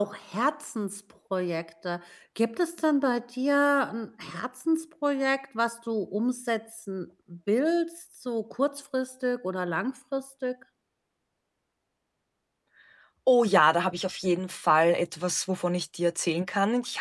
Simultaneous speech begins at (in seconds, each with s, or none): none